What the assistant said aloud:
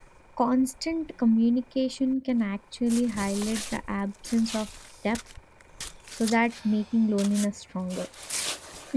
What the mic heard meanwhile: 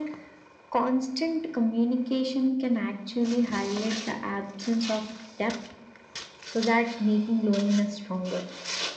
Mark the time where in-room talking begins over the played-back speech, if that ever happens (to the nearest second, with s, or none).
none